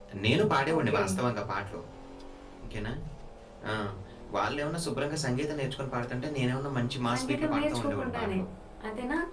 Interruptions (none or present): present